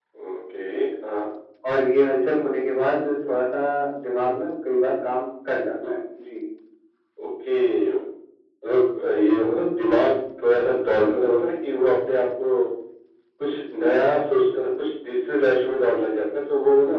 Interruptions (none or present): none